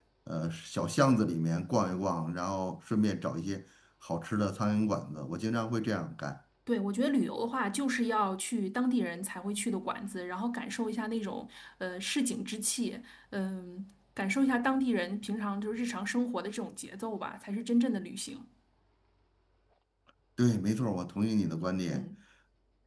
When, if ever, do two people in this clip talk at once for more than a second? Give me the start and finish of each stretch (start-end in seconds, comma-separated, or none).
none